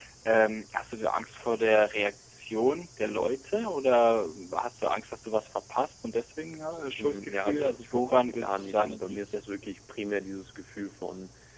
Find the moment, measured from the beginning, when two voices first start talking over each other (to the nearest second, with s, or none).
7 s